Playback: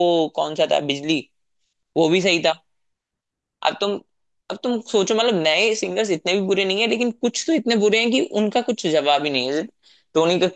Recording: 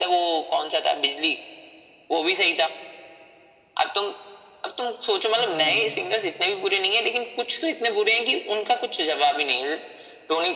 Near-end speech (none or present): present